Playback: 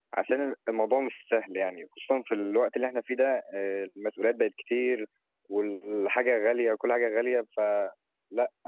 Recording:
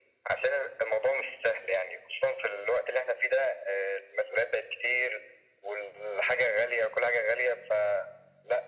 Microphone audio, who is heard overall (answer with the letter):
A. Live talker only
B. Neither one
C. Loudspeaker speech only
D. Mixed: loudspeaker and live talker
C